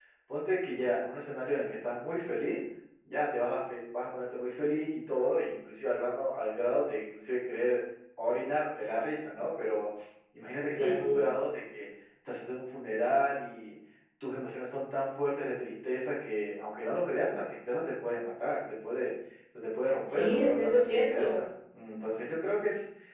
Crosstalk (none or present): present